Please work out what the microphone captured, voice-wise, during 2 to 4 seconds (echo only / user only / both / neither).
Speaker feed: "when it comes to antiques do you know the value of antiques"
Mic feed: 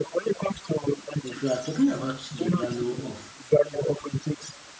both